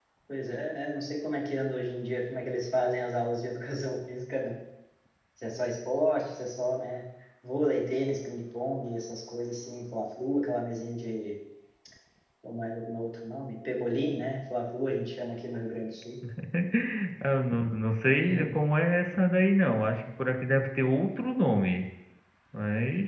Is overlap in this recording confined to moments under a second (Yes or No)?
Yes